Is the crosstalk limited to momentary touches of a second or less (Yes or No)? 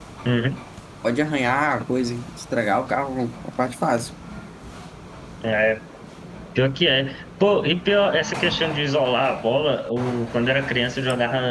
Yes